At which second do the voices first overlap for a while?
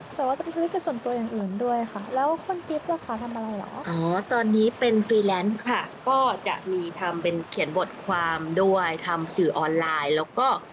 none

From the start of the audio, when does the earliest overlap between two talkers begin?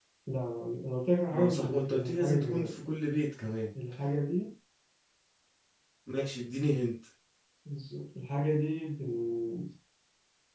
1.3 s

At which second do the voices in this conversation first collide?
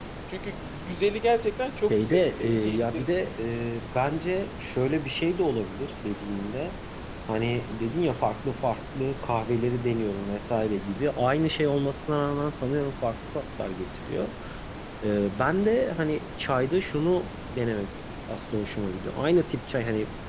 1.9 s

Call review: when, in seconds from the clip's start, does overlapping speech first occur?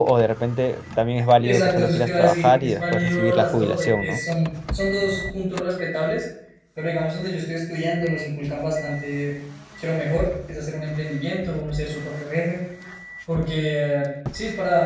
1.4 s

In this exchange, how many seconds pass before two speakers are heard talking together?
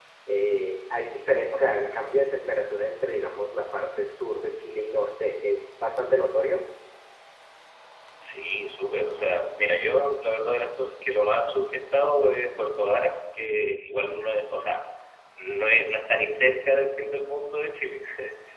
none

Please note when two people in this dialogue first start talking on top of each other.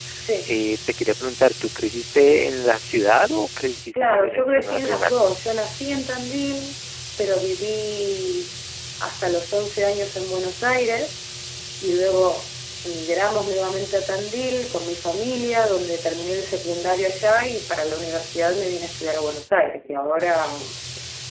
3.9 s

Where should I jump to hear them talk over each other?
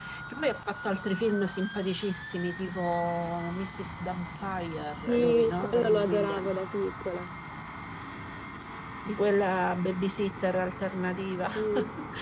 5.1 s

